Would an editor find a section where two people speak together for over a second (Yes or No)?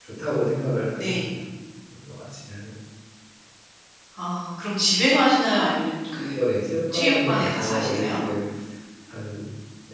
Yes